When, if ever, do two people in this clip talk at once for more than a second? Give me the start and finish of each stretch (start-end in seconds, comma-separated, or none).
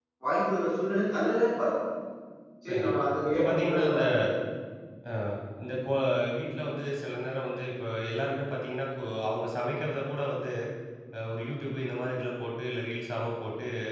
2.7-4.0